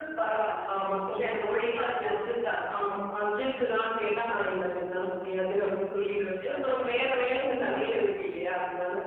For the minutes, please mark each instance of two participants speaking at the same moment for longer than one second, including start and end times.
1.1-2.3

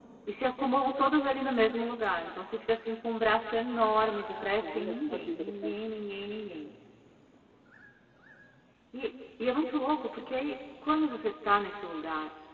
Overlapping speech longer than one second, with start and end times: 4.0-5.8

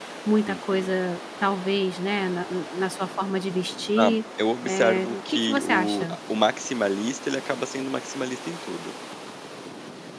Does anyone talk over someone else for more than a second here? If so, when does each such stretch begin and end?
4.6-6.2

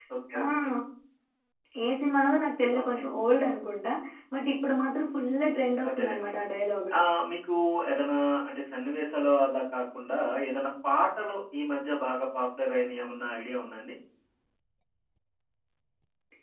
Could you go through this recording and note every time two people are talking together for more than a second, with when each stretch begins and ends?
none

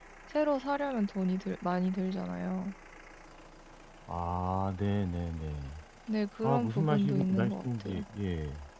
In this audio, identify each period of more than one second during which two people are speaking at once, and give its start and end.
6.4-8.0

